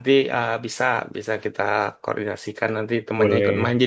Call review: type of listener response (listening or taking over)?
listening